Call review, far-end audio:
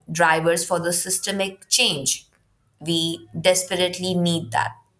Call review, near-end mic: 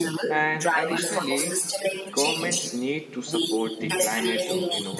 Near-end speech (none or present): present